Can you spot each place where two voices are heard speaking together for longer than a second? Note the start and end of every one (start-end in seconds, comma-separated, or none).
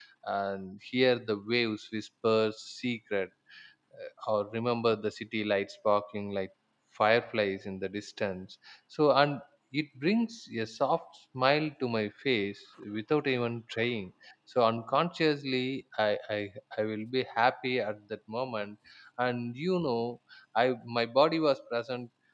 none